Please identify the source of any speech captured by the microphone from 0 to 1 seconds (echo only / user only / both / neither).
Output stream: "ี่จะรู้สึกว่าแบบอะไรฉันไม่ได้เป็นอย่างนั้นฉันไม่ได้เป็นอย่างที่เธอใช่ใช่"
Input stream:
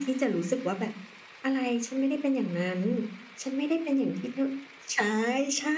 echo only